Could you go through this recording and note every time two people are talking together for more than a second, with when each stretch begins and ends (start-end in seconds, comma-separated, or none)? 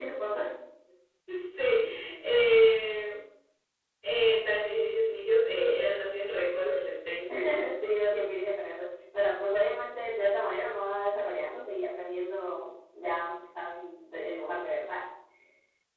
none